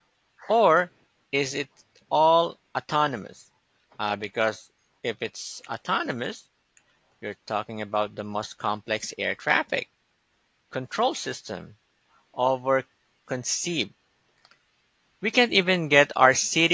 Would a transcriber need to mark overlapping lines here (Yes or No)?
No